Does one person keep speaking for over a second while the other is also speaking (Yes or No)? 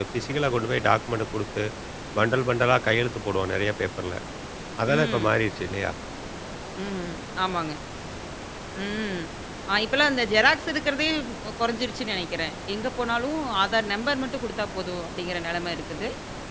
No